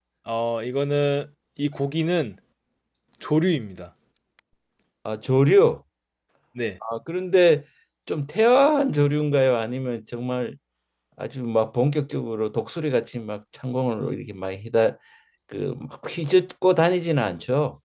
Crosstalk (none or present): none